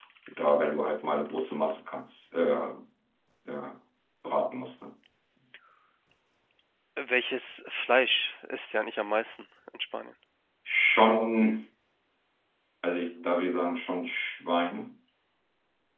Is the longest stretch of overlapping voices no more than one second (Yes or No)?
Yes